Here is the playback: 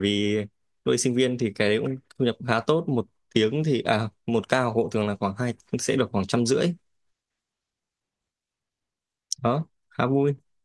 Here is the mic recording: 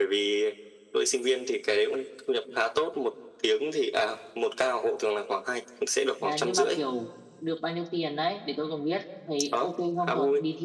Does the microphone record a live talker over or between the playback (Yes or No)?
Yes